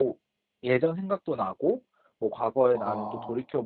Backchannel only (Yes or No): Yes